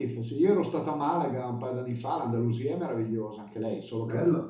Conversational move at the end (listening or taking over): listening